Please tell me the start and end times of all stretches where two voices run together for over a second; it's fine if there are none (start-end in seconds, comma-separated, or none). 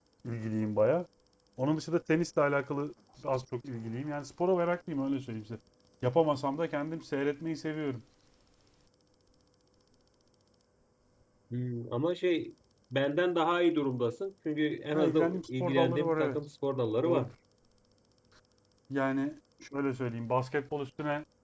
14.9-16.4